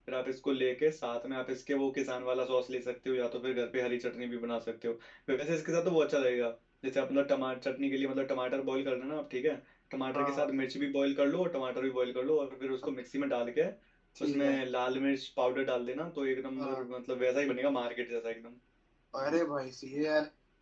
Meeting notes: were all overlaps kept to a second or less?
Yes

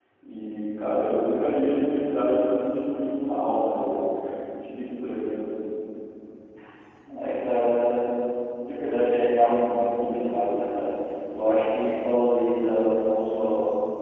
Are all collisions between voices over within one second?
Yes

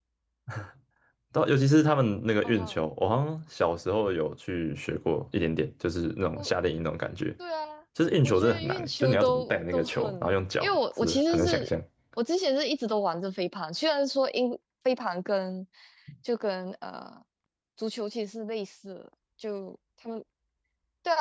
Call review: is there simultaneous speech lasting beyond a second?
Yes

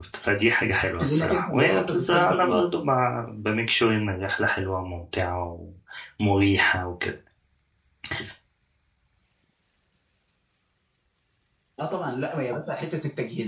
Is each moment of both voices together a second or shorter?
No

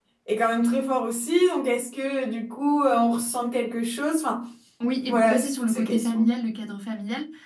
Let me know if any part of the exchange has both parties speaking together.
Yes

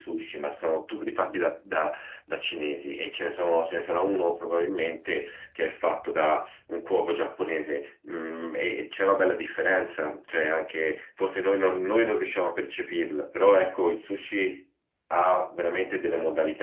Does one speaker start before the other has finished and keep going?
No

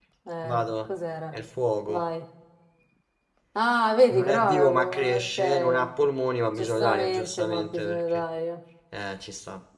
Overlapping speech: Yes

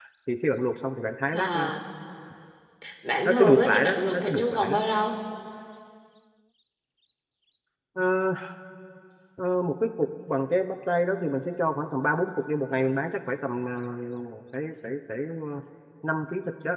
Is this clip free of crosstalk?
No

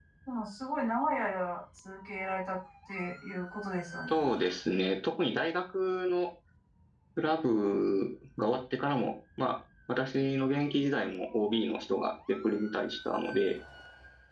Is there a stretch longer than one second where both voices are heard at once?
No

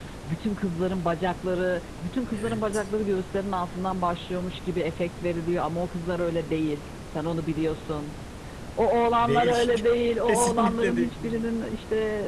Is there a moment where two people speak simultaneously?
Yes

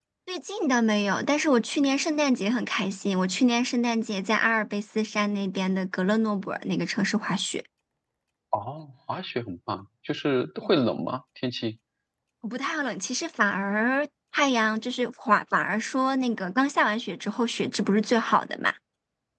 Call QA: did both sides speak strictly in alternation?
Yes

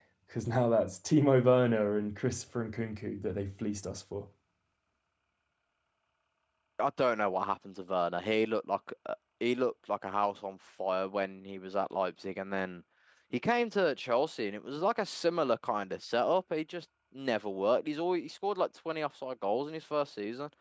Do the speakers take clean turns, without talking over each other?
Yes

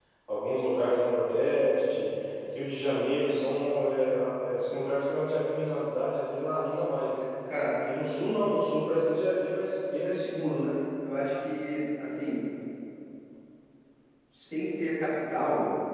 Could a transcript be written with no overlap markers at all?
Yes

